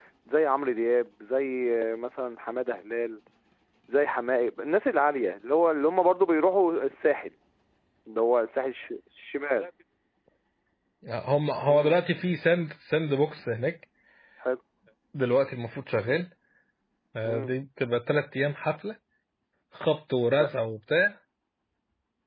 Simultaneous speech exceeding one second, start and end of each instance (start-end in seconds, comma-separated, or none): none